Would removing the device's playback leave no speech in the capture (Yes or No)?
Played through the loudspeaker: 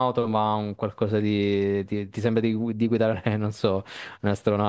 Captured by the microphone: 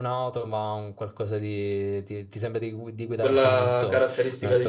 No